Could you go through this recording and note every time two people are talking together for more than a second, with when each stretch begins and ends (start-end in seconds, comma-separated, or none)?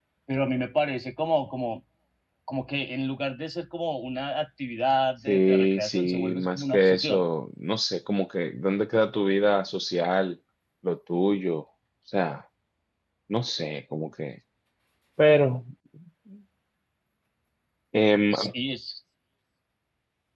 5.3-7.3